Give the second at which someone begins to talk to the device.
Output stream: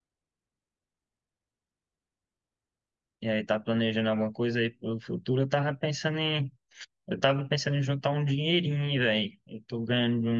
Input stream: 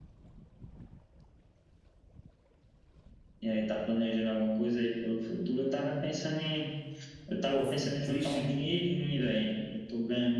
7.4 s

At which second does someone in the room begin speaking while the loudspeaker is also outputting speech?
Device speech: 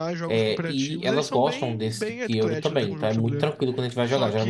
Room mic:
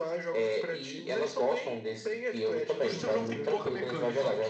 2.8 s

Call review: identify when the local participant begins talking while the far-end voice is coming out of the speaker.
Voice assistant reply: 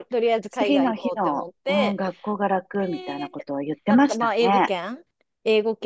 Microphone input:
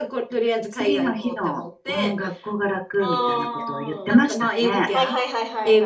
3.0 s

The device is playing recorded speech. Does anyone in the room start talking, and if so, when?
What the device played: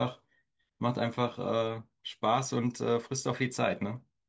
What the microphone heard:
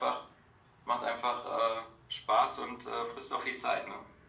none

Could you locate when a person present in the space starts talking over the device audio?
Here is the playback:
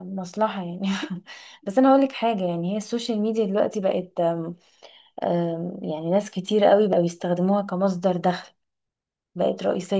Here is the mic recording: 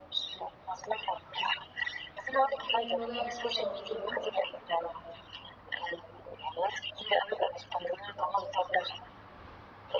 2.4 s

